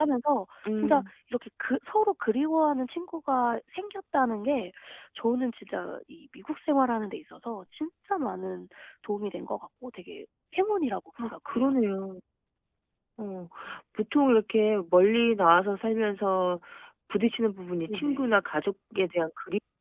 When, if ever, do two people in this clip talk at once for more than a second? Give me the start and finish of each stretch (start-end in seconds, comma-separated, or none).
none